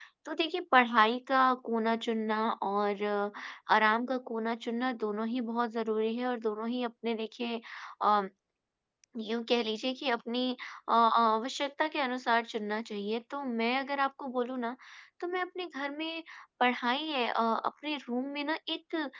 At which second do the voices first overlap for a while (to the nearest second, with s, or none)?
none